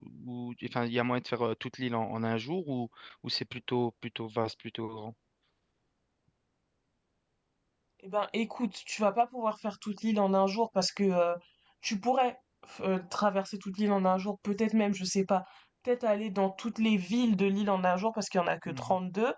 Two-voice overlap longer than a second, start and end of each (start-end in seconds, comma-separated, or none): none